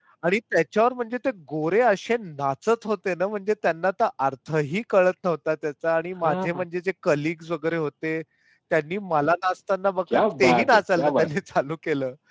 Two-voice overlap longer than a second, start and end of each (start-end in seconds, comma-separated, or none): 10.1-11.4